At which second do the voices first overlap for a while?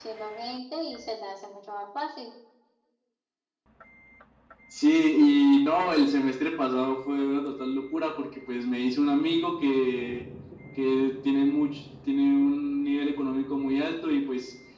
none

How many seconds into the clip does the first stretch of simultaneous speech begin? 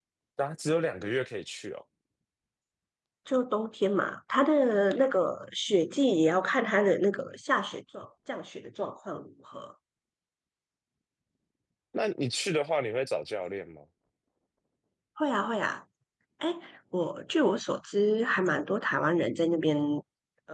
none

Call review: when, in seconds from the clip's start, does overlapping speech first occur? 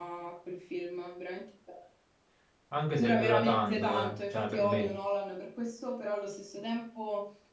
3.0 s

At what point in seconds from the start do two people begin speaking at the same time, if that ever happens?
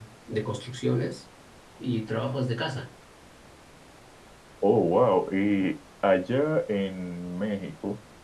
none

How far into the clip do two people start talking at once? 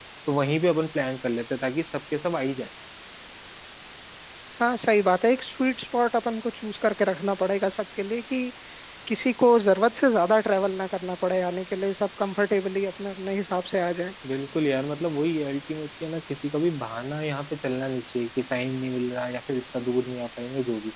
none

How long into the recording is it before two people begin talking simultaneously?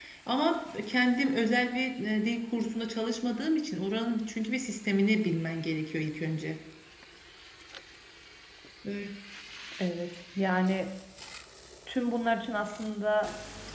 none

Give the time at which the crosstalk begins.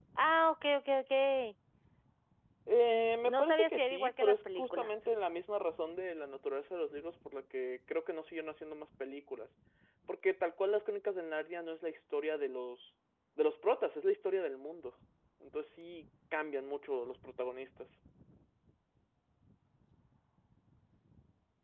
3.2 s

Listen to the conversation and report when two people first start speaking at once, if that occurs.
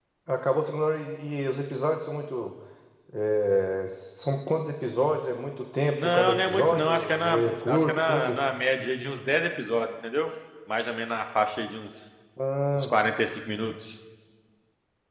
6.0 s

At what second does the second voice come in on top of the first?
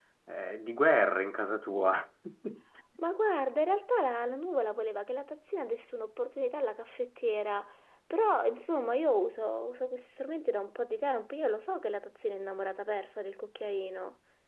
none

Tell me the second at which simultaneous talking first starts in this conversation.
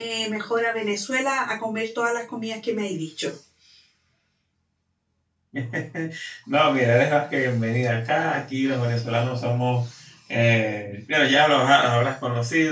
none

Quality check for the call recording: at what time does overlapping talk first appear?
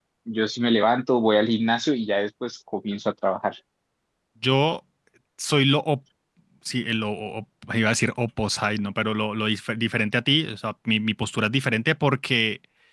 none

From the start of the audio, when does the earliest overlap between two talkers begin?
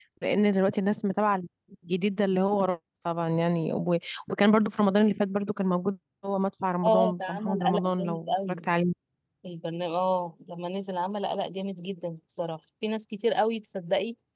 6.8 s

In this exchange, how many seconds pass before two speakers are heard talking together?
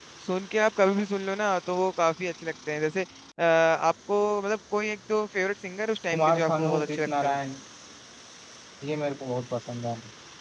6.1 s

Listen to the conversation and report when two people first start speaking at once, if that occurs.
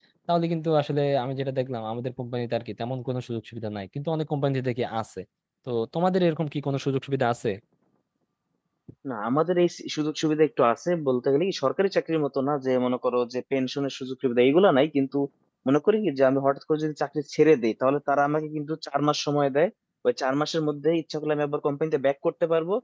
none

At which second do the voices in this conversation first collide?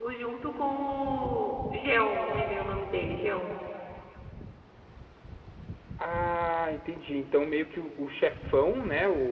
none

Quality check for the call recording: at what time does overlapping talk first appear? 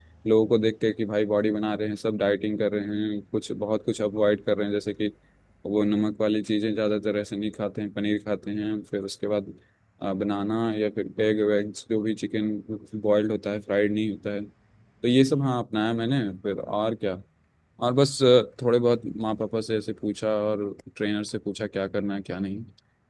none

